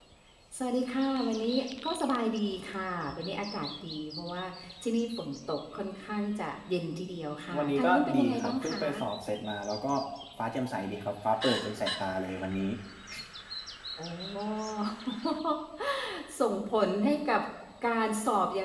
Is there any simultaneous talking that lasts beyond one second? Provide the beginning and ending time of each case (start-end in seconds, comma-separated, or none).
7.6-8.8